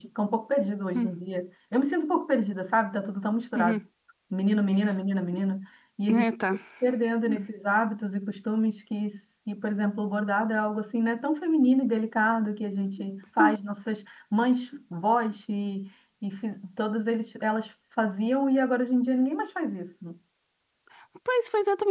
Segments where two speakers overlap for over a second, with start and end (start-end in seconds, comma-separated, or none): none